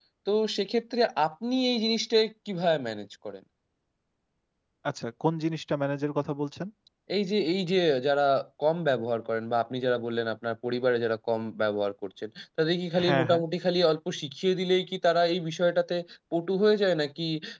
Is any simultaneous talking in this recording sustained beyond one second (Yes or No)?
No